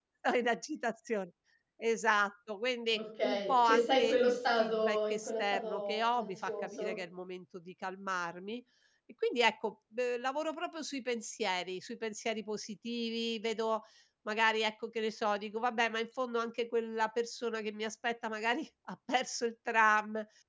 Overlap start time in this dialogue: 2.9 s

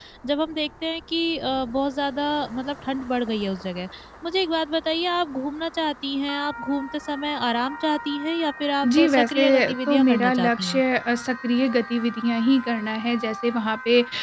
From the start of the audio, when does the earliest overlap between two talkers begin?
8.8 s

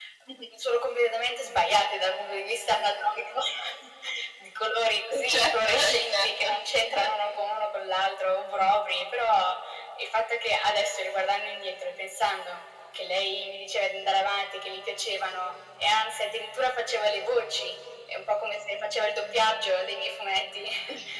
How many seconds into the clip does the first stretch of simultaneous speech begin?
5.1 s

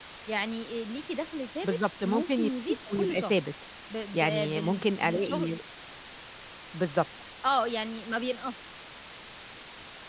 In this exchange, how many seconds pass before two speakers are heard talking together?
1.6 s

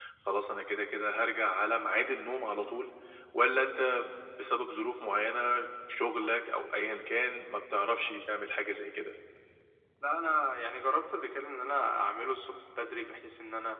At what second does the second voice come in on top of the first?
none

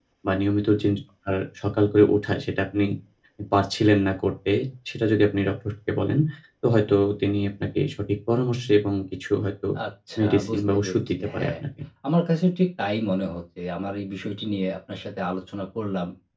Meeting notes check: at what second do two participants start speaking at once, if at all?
10.2 s

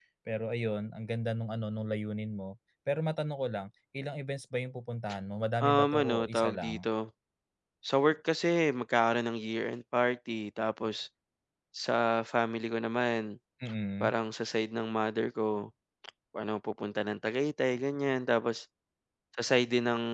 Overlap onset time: 5.6 s

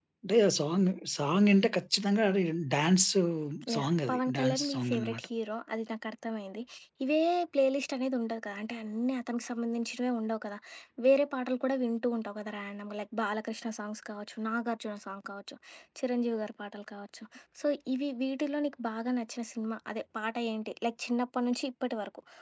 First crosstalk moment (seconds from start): 3.8 s

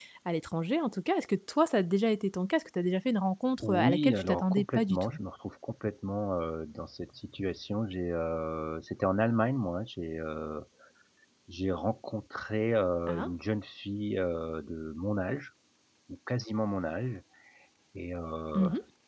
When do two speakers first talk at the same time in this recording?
3.6 s

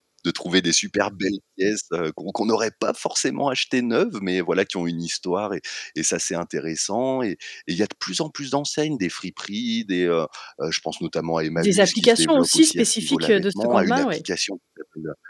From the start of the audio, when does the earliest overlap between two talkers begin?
11.6 s

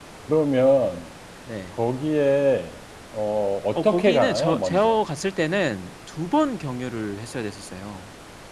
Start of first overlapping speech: 3.8 s

